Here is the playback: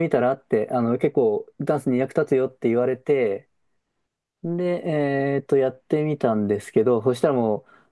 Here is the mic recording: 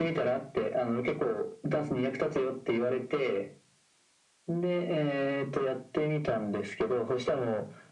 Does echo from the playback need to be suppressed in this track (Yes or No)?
Yes